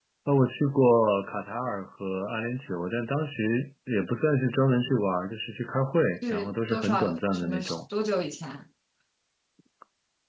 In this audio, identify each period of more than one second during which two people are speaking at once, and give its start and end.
6.3-7.8

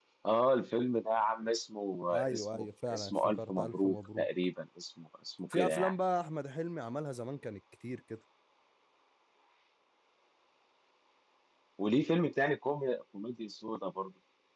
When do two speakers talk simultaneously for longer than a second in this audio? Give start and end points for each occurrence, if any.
2.1-4.3

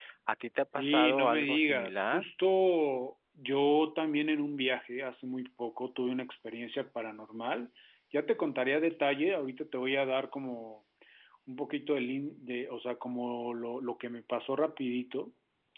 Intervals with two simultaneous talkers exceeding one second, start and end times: 0.8-2.2

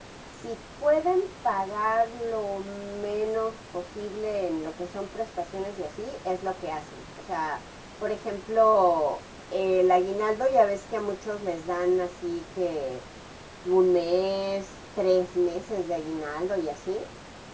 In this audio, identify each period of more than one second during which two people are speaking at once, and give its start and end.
none

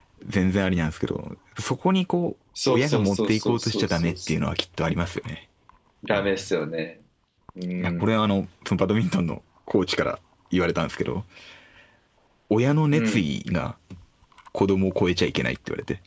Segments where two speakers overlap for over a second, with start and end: 2.7-4.3

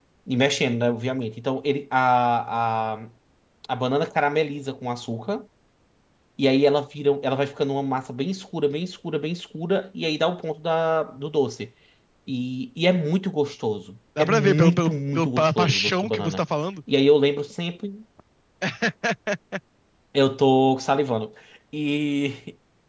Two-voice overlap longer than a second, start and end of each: 14.2-16.4

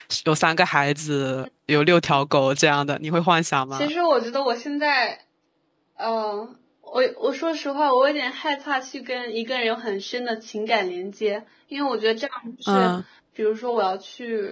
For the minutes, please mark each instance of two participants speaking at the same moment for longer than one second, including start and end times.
none

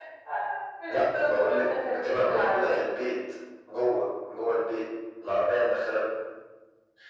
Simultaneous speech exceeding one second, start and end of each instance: 0.9-2.8

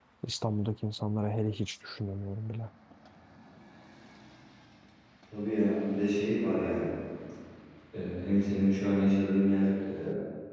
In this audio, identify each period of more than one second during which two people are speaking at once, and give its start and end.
none

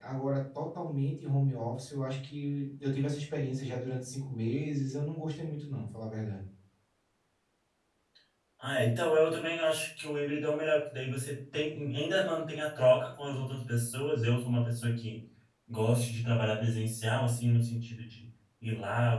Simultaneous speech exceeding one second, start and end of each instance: none

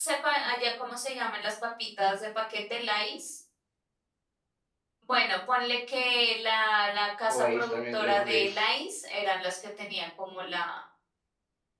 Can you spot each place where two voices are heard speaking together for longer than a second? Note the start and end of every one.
7.3-8.7

